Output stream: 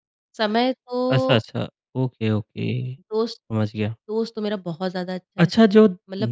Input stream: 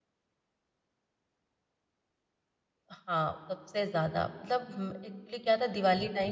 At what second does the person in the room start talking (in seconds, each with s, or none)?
2.9 s